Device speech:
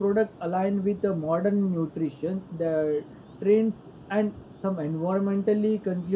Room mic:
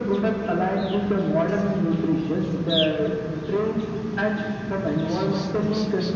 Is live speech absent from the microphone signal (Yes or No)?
Yes